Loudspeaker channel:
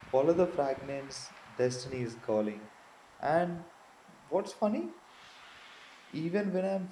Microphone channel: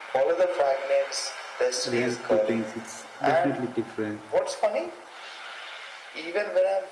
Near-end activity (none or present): present